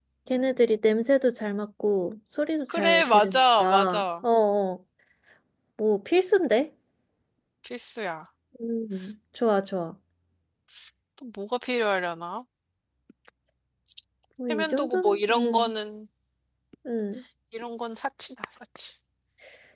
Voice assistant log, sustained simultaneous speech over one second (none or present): present